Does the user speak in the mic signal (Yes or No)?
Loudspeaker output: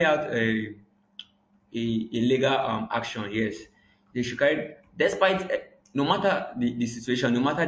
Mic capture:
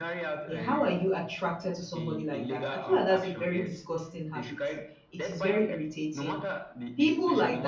Yes